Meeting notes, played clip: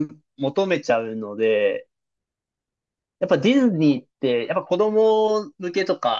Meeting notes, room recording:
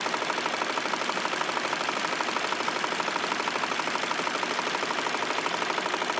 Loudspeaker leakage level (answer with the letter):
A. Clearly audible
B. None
B